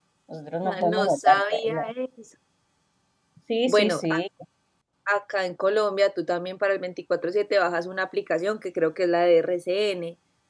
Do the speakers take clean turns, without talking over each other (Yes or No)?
No